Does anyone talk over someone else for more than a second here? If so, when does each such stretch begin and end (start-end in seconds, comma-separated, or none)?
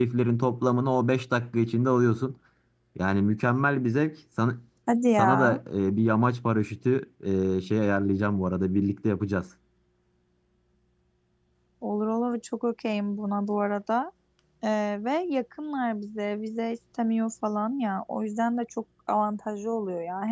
none